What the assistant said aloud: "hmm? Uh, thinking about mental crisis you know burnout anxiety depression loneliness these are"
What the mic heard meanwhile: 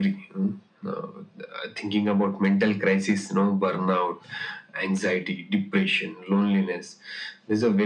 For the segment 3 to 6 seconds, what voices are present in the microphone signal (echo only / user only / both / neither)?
echo only